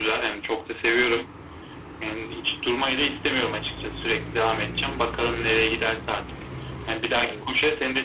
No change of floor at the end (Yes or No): Yes